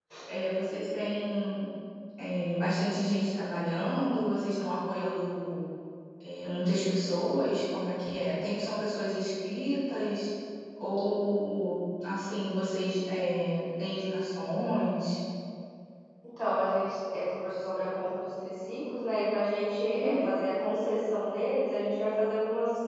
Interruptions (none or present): none